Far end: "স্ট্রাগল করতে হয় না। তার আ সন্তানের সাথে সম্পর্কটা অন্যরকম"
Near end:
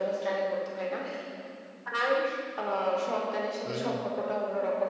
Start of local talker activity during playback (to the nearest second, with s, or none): 4 s